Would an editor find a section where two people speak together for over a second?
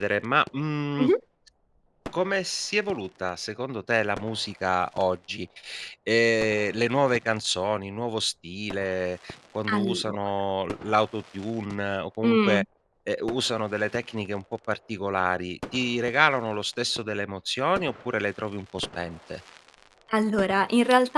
No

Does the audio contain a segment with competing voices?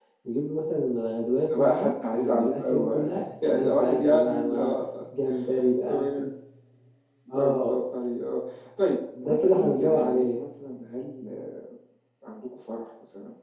Yes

